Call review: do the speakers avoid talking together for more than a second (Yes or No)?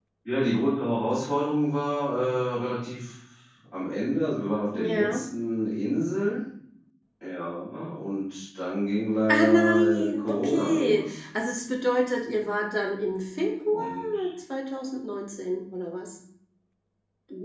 No